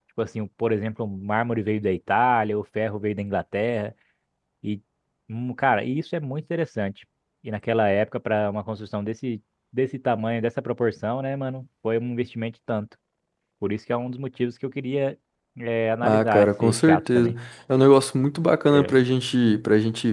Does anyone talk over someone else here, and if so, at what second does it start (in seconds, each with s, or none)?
16.1 s